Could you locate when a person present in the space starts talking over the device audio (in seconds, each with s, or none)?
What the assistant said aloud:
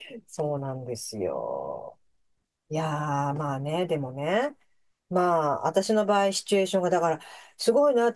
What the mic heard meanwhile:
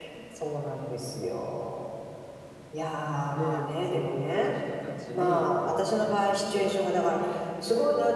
3.3 s